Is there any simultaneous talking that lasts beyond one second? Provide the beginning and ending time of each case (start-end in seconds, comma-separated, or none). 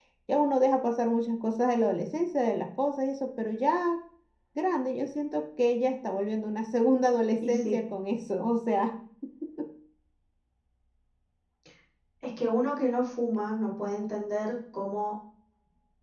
none